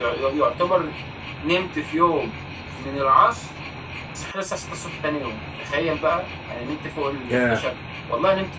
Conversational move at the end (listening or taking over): listening